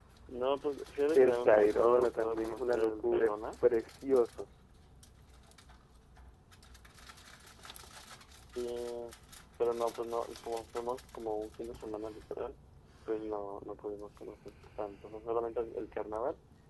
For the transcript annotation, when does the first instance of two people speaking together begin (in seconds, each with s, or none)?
1.1 s